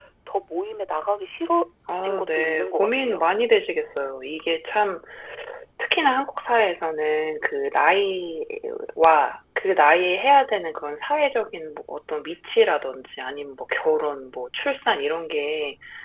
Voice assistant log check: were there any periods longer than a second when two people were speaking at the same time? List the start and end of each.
2.0-3.2

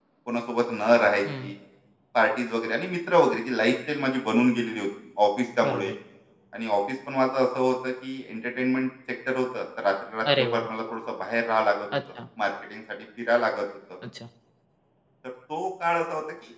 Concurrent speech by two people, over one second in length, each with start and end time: none

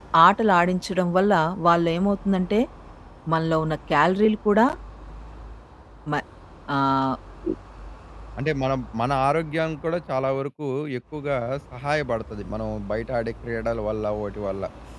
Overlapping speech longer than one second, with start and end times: none

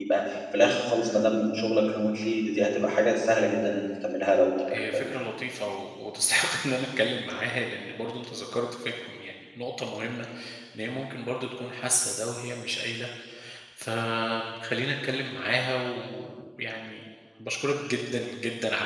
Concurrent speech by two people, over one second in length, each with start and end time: none

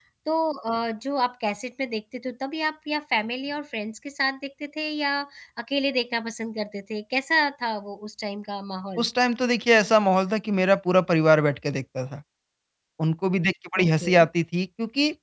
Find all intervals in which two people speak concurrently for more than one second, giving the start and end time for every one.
none

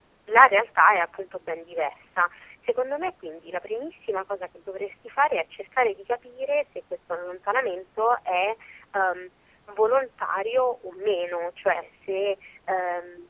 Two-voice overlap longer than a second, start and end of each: none

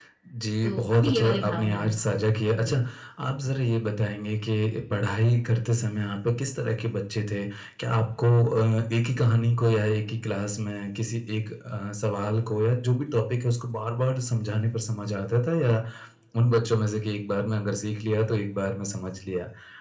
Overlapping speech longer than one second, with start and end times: 0.6-2.2

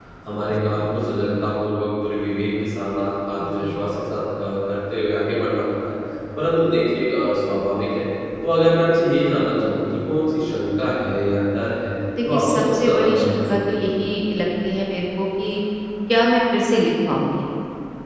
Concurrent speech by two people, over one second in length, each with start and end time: 12.2-13.9

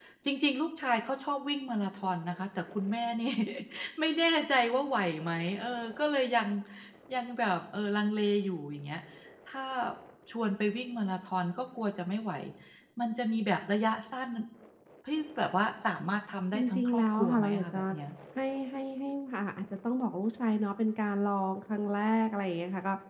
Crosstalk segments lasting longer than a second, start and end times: 16.5-17.8

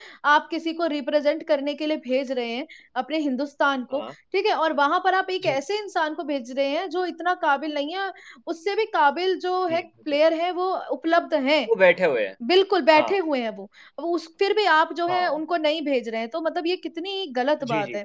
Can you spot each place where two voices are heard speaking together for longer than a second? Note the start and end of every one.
none

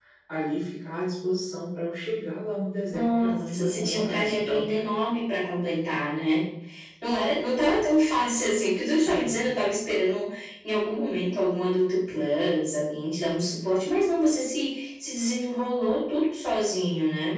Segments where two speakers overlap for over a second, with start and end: 2.9-4.7

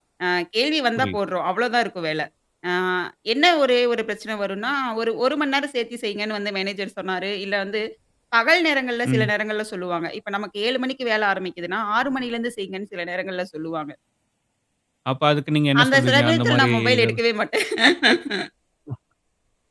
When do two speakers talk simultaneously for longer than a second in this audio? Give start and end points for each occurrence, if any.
15.8-17.2

